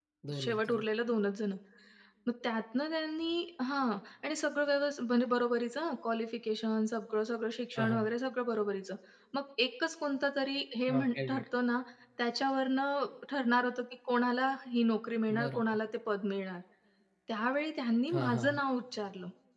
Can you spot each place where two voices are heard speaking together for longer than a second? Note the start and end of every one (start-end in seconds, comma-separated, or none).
none